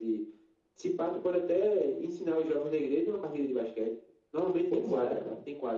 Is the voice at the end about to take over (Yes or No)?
Yes